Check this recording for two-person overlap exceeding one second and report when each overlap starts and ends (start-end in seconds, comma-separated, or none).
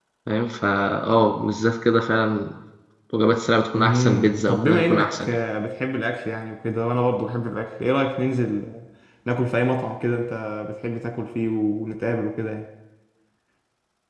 3.8-5.4